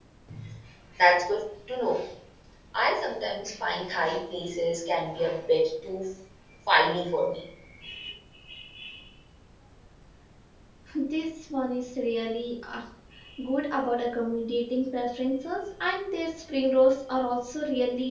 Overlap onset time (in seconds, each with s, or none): none